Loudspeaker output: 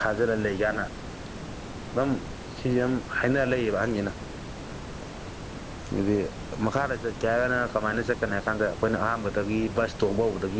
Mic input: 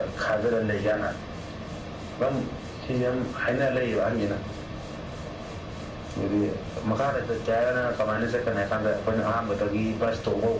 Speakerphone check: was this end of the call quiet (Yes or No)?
Yes